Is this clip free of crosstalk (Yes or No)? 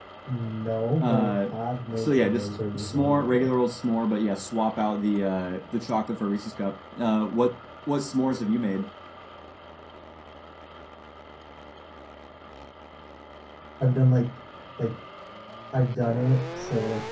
No